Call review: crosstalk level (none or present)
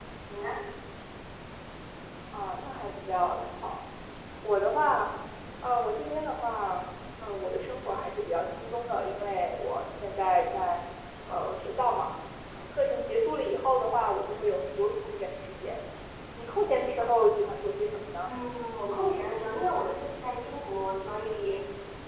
none